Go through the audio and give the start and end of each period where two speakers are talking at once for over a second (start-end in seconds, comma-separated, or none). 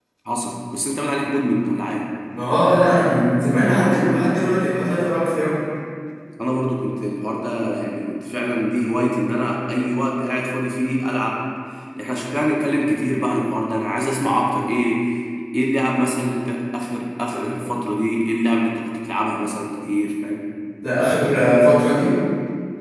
none